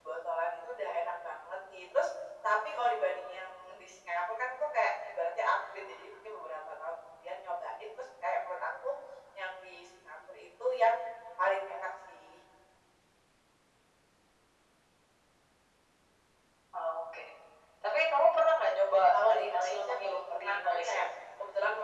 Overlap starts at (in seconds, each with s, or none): 19.1 s